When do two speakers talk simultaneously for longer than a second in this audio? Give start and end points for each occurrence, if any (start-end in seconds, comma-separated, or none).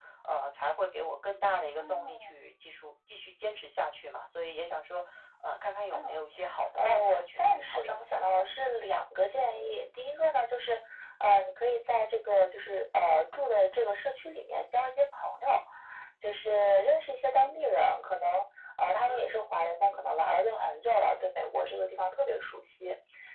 6.8-8.2